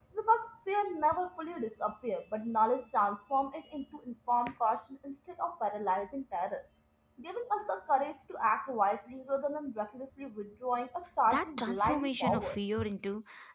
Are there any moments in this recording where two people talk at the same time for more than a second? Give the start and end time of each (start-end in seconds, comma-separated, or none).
11.3-12.6